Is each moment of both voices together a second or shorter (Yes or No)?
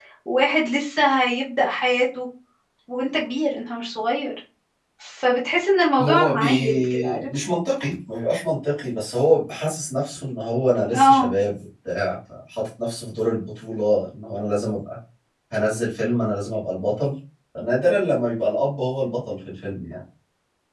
No